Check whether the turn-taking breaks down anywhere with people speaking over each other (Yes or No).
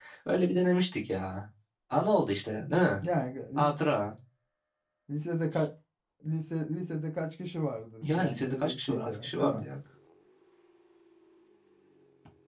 Yes